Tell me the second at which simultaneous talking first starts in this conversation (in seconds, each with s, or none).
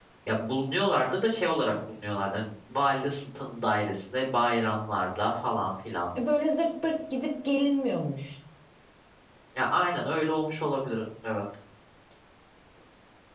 none